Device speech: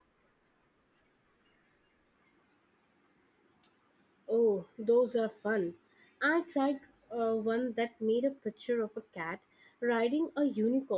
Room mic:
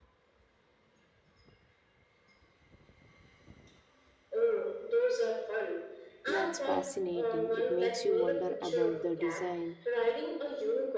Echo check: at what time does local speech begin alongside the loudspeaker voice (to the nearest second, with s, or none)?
6 s